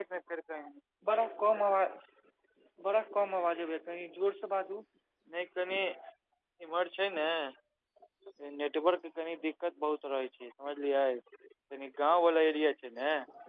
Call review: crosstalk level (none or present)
none